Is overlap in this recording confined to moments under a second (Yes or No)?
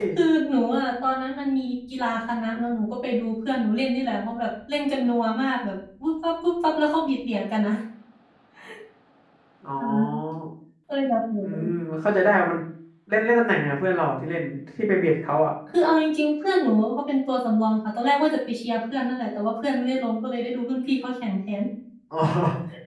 Yes